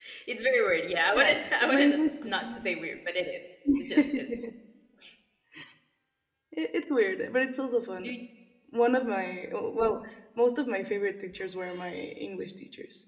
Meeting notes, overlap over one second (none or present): present